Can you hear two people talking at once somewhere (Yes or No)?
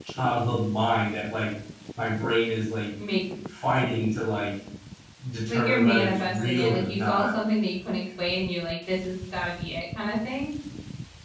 Yes